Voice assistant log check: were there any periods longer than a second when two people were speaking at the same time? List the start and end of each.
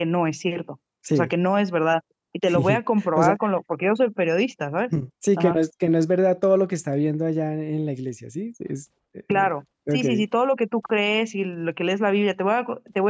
none

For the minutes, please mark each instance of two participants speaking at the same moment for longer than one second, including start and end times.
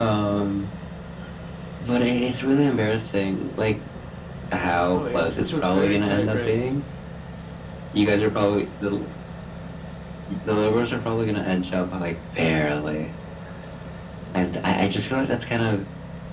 4.9-6.7

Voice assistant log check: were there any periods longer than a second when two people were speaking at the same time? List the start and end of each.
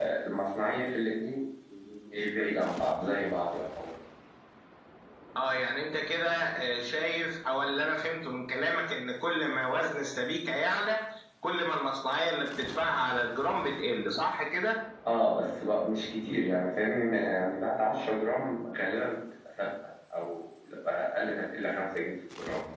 none

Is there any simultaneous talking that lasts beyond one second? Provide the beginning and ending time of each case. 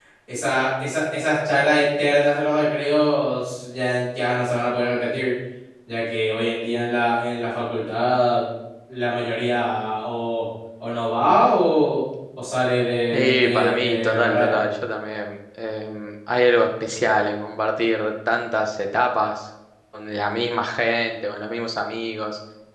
13.1-14.5

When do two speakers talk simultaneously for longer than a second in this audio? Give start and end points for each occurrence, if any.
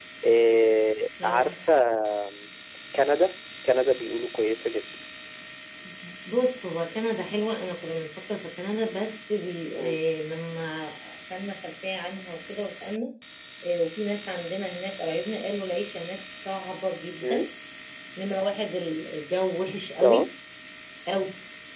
none

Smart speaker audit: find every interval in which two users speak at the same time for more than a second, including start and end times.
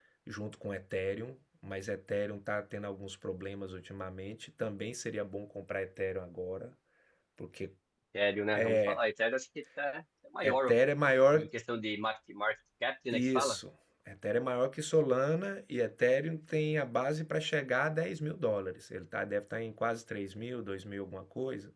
none

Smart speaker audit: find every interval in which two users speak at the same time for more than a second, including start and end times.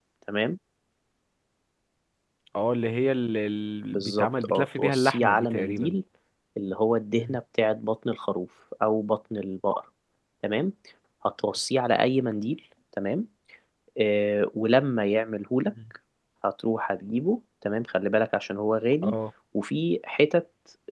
3.9-5.9

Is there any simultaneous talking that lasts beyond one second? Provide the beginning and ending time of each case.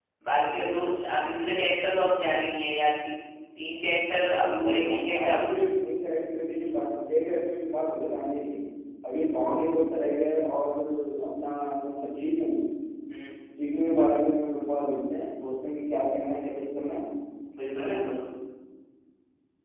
4.2-5.5

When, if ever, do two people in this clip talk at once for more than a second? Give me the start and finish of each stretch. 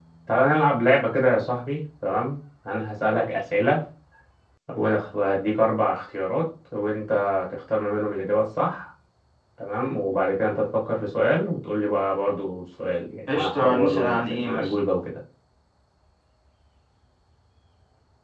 13.3-14.7

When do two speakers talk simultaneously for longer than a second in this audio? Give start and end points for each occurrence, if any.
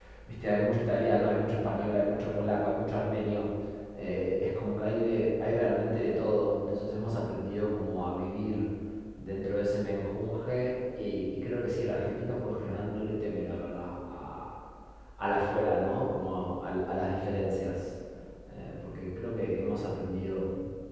none

